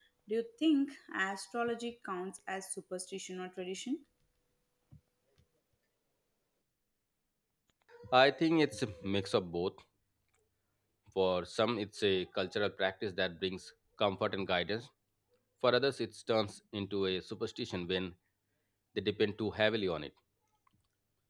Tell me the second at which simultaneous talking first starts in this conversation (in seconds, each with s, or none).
none